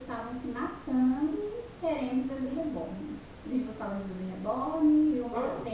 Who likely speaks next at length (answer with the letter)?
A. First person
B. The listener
A